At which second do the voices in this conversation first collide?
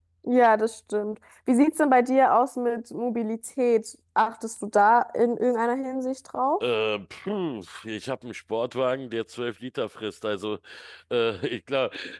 none

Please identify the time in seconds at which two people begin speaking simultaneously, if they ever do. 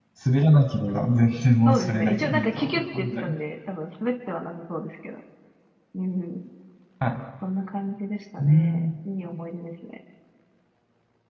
1.6 s

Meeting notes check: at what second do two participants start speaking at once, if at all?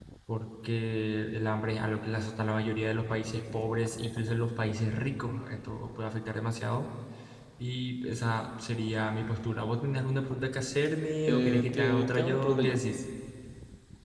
11.2 s

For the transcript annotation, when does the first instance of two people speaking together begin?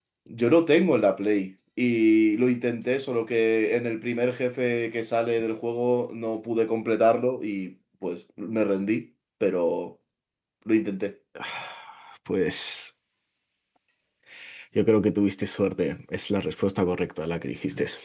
none

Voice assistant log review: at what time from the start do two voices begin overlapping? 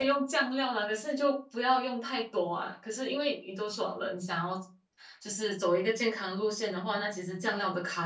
none

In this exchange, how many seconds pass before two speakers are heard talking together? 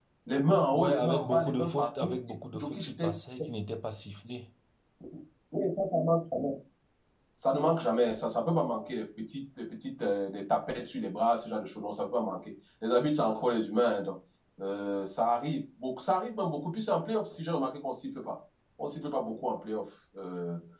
0.7 s

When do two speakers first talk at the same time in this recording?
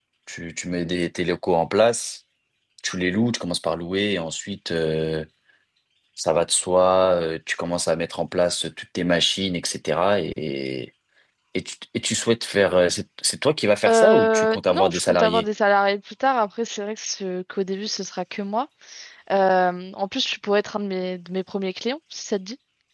13.8 s

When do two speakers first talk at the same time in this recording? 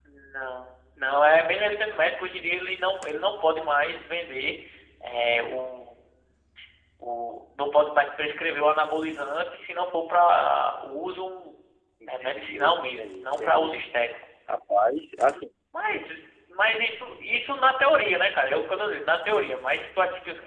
12.1 s

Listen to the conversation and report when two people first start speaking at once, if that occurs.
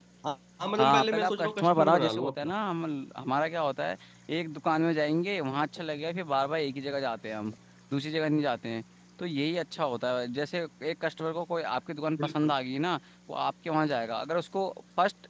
0.8 s

